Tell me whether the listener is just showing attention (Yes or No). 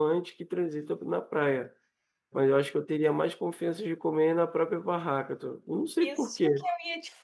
No